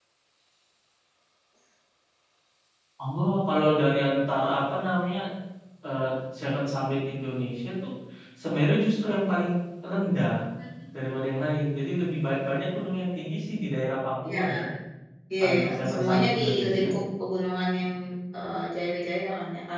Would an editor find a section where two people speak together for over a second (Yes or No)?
Yes